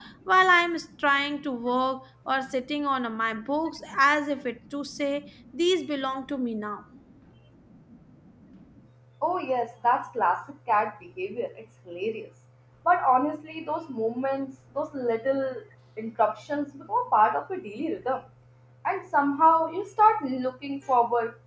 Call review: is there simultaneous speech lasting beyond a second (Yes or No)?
No